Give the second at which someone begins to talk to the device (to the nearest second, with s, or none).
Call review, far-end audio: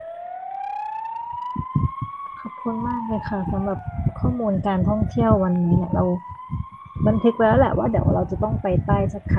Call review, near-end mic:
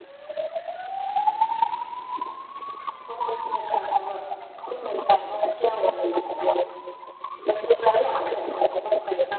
none